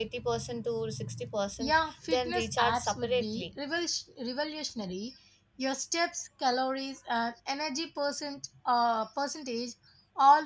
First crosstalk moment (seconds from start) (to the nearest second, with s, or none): 2 s